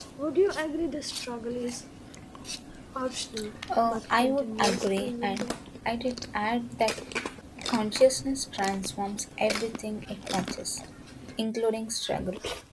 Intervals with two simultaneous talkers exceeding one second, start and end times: 3.8-5.5

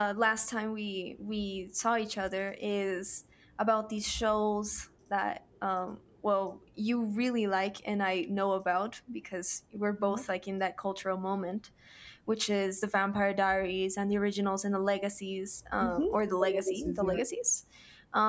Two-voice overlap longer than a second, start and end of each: 15.8-17.2

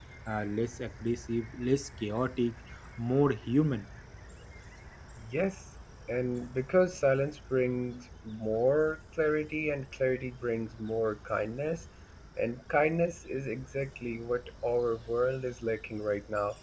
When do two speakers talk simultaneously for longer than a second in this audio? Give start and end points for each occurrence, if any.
none

